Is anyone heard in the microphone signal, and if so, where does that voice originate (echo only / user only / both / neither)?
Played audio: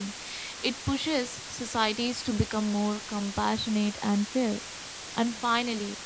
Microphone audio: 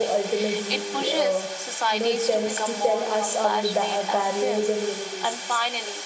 both